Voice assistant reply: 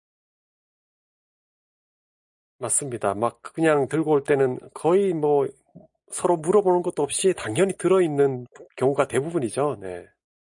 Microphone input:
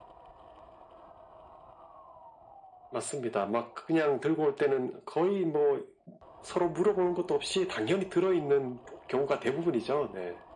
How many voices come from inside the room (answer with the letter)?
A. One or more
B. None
B